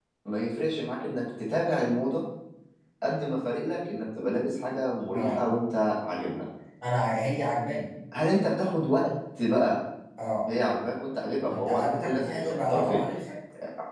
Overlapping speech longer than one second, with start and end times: 11.5-13.0

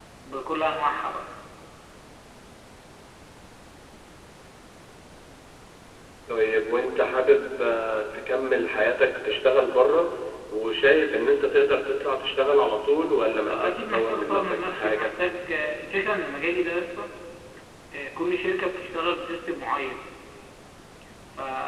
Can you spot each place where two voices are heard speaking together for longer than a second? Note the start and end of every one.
13.5-15.1

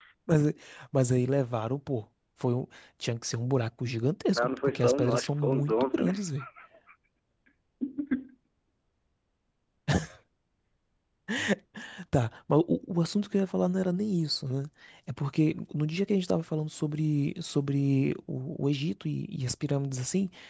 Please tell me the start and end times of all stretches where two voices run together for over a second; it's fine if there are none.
4.3-6.1

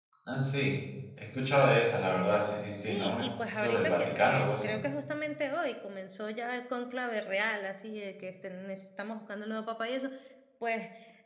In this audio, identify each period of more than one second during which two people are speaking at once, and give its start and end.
2.9-4.7

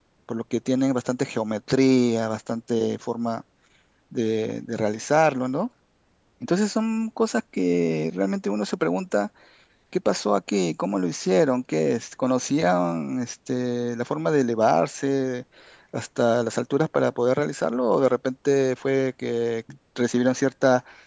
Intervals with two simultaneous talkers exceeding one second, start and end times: none

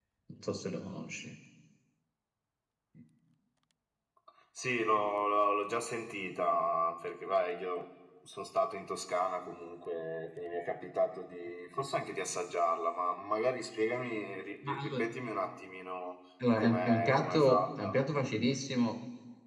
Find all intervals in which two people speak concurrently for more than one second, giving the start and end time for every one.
16.6-18.0

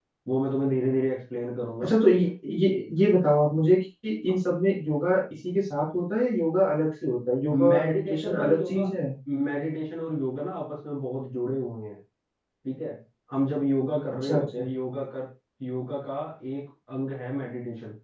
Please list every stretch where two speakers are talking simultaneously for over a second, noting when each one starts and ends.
7.7-8.9

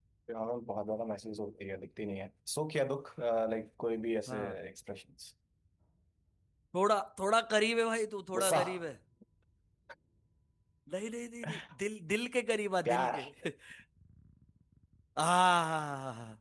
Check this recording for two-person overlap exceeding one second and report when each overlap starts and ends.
none

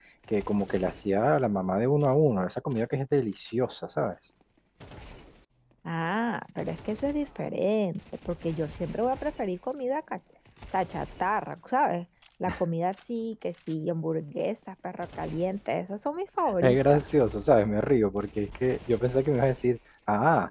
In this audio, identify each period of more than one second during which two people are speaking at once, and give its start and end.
none

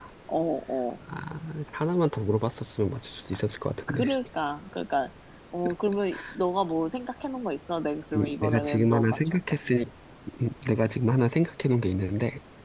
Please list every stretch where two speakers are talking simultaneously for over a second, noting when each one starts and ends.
8.2-9.5

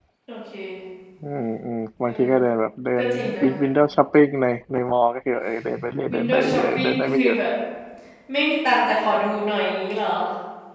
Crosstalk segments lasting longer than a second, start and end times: 6.1-7.4

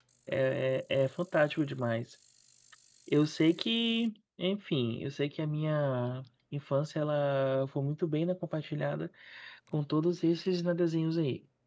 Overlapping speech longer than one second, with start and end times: none

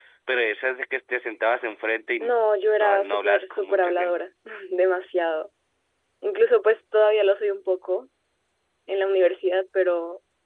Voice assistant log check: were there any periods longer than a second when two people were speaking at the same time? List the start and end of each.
2.8-4.1

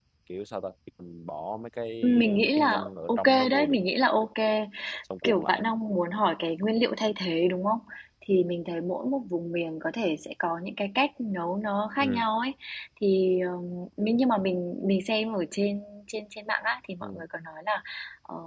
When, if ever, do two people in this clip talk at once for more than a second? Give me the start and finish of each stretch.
2.0-3.9

